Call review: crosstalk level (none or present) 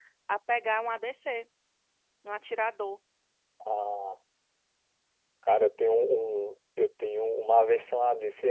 none